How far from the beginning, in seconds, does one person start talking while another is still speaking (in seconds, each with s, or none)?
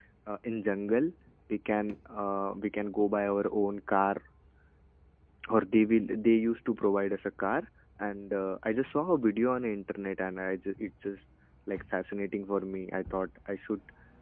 none